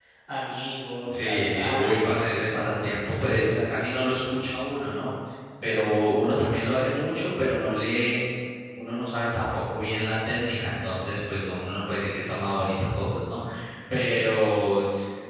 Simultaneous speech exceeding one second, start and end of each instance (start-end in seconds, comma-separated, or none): 1.1-2.3